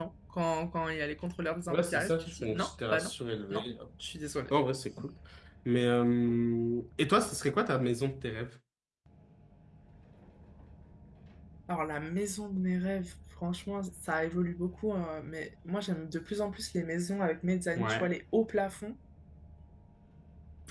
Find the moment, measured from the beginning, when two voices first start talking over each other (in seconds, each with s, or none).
1.7 s